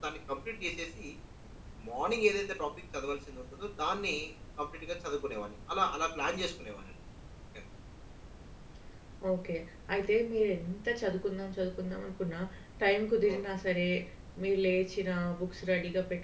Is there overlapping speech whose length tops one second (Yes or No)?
No